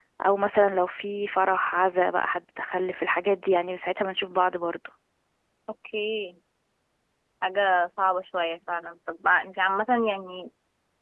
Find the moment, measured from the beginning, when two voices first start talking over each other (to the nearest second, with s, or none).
none